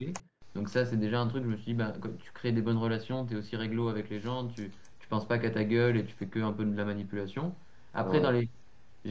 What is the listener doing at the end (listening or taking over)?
listening